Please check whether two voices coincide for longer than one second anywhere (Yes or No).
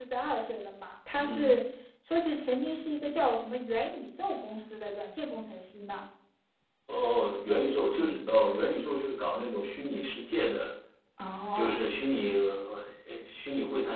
No